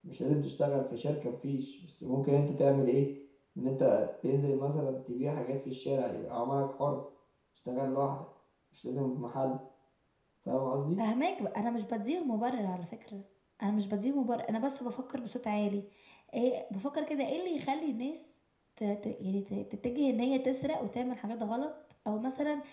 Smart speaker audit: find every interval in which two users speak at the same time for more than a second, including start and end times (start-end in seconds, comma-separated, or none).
none